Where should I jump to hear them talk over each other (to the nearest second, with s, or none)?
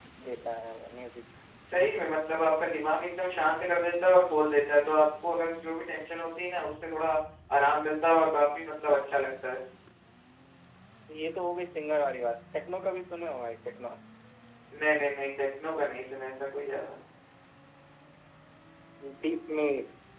none